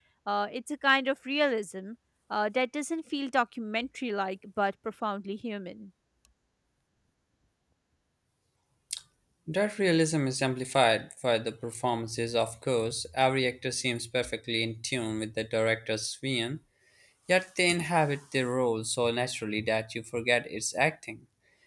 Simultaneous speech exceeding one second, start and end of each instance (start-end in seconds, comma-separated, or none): none